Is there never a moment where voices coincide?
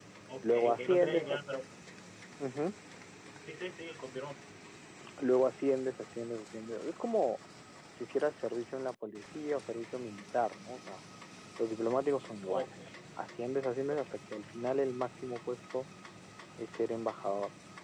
No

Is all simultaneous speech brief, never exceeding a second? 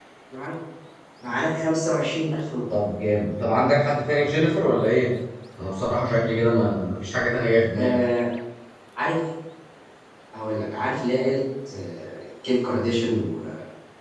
Yes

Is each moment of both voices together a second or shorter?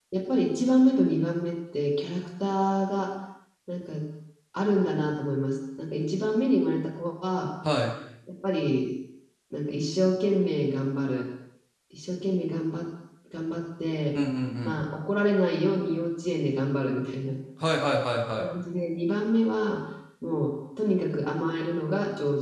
Yes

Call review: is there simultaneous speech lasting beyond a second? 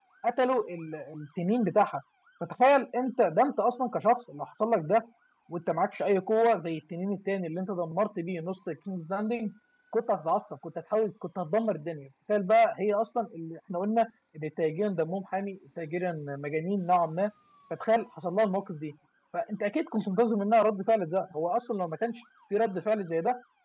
No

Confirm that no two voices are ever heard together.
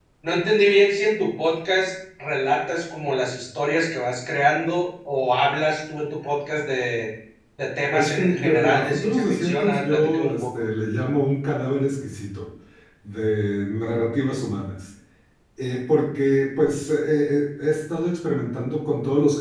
No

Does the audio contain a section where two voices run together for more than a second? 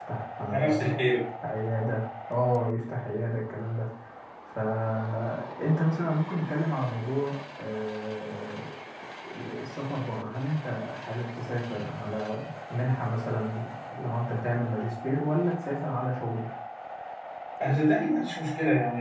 No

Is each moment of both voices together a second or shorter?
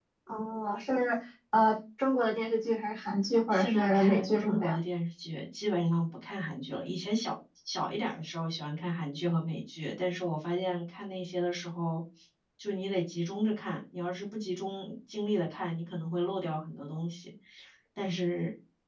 No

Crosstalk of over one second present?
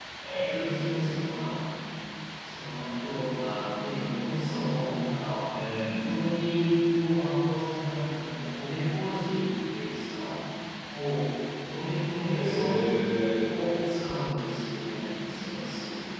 No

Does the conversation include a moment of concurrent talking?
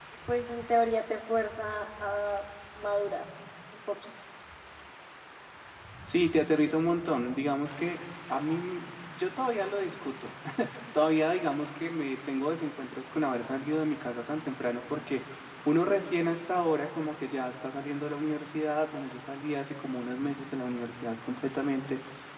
No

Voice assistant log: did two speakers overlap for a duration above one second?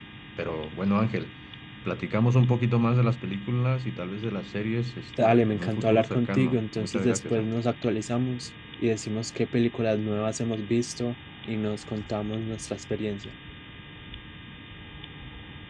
Yes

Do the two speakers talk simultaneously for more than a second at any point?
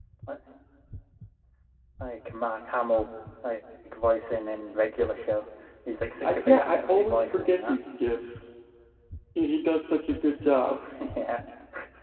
Yes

